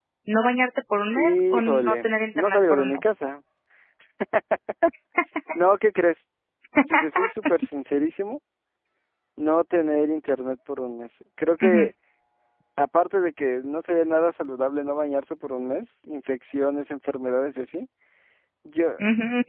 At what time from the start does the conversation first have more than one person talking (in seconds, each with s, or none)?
1.1 s